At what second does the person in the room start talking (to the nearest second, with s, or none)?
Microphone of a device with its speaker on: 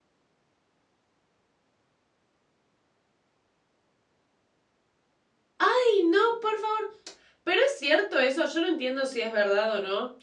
6 s